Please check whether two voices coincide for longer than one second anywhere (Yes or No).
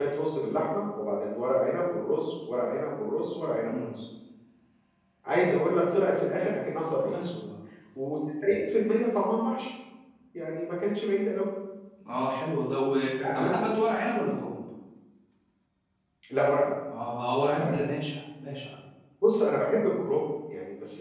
No